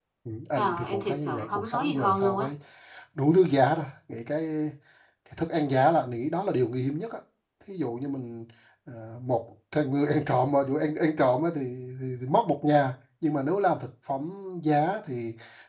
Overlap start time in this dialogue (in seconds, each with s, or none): 0.5 s